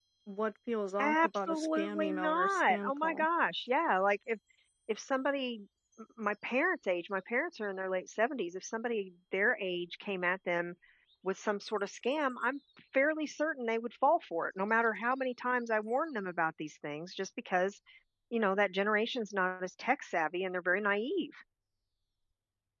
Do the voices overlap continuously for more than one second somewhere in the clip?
Yes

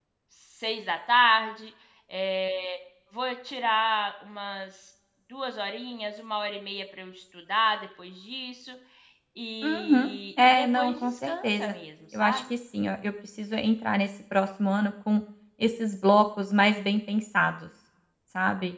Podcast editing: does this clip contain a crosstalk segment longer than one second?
Yes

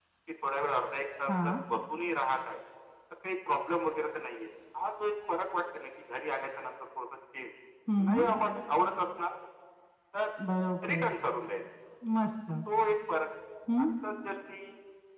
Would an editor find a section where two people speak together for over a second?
No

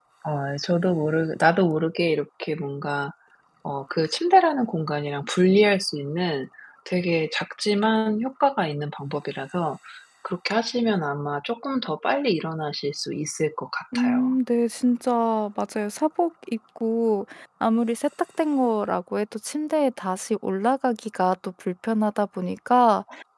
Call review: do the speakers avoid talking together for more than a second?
Yes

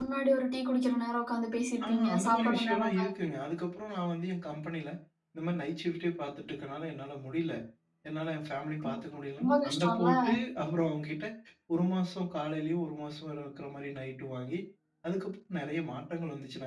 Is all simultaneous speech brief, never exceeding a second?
No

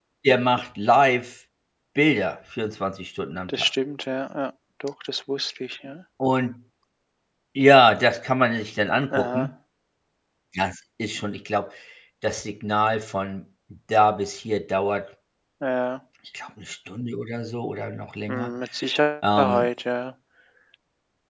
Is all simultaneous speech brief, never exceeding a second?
Yes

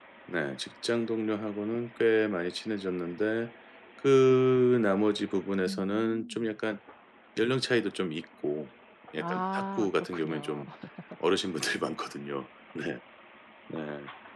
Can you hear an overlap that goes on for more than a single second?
Yes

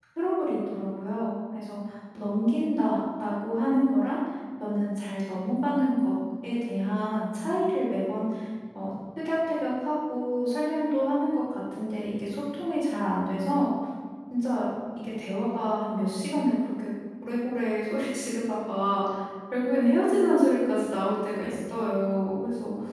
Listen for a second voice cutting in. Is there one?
No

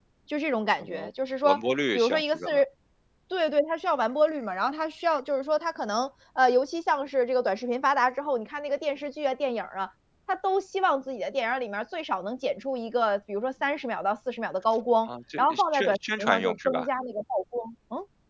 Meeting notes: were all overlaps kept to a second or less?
No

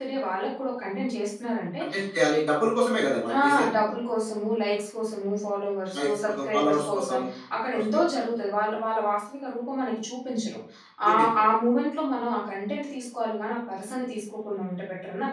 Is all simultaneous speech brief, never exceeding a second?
No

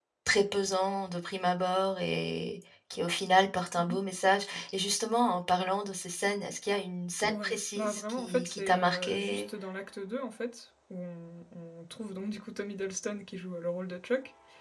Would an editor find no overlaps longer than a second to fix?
No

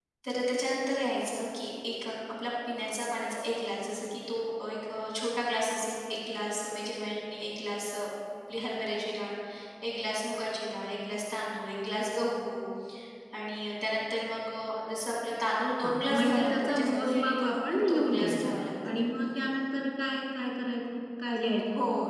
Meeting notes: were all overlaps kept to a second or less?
No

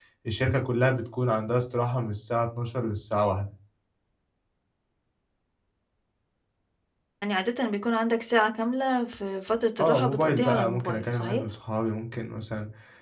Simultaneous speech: Yes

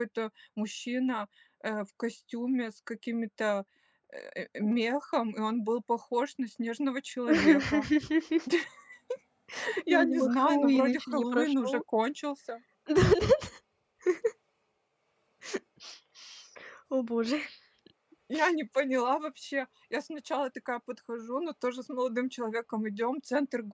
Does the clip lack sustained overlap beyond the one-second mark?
No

